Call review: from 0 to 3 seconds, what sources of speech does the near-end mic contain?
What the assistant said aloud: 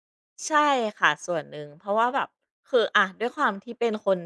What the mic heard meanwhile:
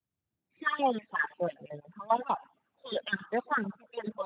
echo only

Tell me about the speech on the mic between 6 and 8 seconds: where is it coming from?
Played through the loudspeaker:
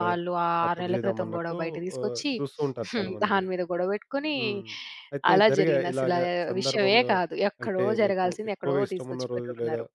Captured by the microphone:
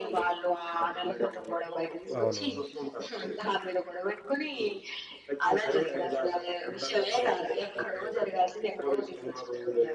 echo only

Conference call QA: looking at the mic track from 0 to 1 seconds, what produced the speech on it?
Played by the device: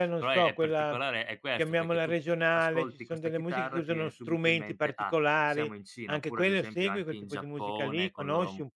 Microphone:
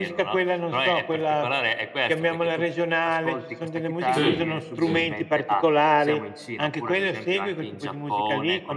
echo only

